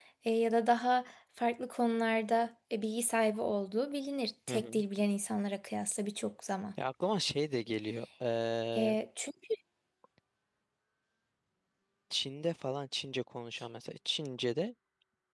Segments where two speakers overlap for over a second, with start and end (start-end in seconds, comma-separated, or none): none